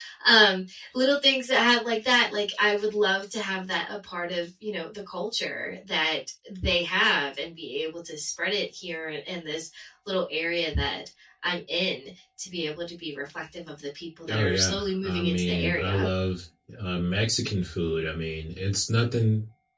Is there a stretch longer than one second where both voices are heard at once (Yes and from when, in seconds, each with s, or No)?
Yes, from 14.3 s